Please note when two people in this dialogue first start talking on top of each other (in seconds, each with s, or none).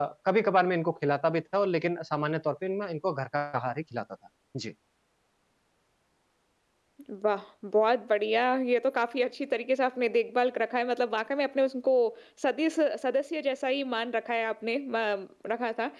none